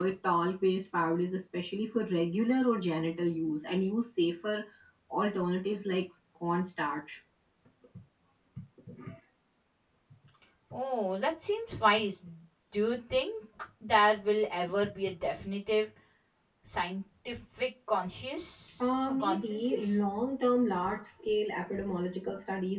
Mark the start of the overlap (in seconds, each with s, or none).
18.8 s